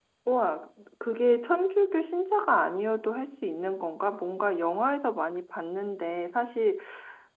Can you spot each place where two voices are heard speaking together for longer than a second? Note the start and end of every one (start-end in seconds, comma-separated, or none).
none